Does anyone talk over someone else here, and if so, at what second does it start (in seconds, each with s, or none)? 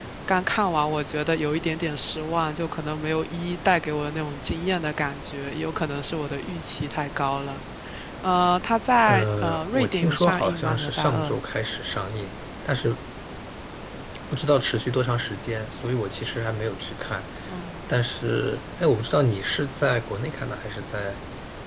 9.1 s